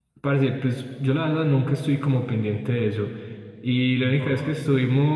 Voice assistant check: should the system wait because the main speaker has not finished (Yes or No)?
Yes